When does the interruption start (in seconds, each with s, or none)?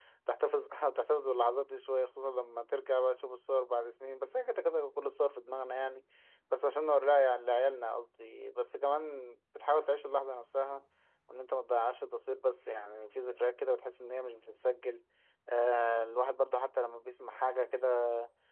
none